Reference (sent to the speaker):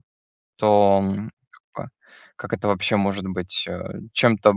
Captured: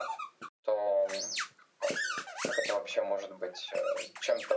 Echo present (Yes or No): Yes